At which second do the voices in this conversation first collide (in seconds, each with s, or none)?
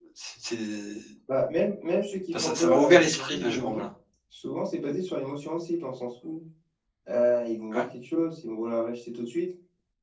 2.3 s